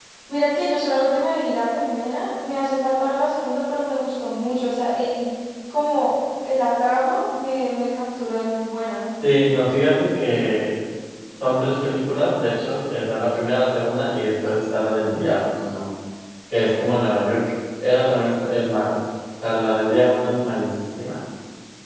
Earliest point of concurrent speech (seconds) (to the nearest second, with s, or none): none